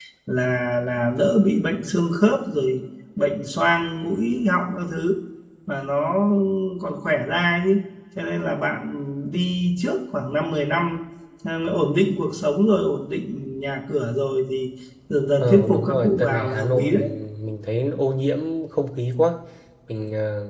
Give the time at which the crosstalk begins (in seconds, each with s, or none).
15.4 s